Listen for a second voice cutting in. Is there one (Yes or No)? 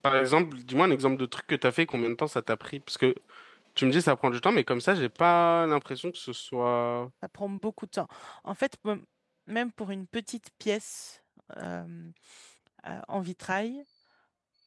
No